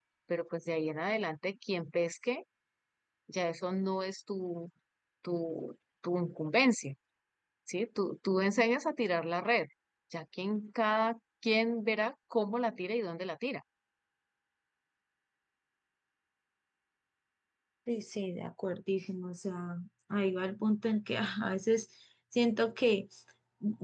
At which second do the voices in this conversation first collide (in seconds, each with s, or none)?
none